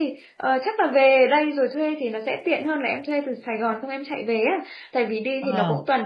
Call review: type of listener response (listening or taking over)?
listening